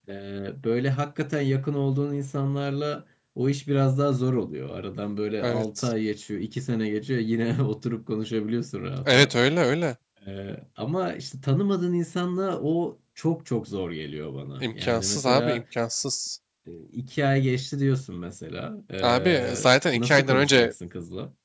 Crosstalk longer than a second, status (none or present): present